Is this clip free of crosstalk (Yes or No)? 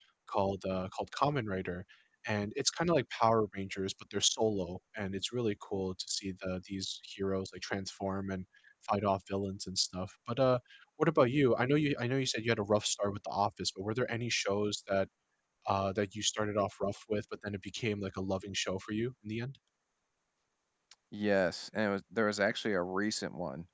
Yes